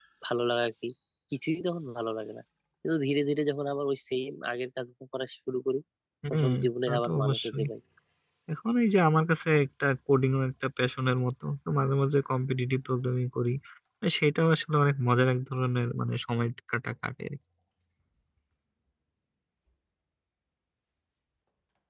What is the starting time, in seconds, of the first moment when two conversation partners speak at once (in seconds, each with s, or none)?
6.3 s